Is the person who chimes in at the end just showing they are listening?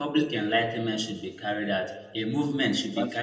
Yes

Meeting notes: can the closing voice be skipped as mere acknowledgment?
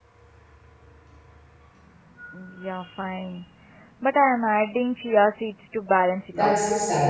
No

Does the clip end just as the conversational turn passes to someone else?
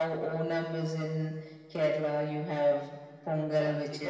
Yes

